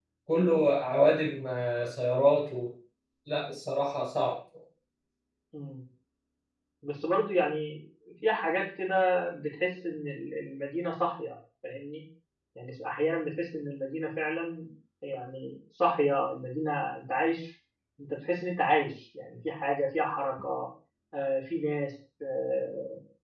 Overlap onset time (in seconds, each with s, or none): none